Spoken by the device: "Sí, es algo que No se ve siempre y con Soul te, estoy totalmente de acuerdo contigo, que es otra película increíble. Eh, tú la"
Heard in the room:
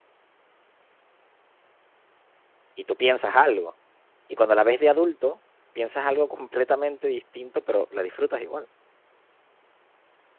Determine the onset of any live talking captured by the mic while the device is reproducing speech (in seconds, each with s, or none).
2.7 s